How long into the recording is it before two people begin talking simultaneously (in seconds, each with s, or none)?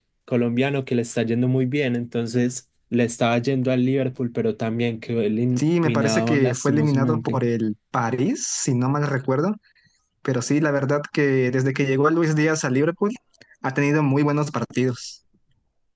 5.6 s